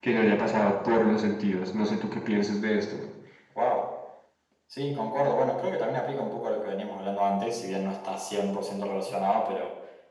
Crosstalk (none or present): none